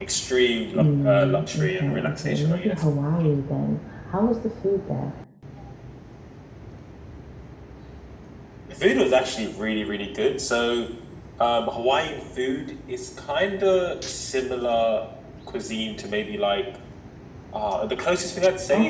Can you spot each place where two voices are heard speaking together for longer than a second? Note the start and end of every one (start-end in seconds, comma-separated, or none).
0.8-2.8